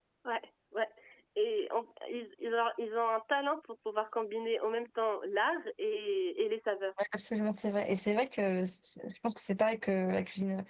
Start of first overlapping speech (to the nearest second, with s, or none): none